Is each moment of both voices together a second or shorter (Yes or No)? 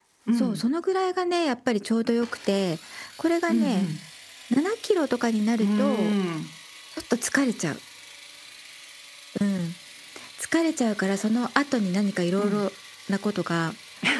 Yes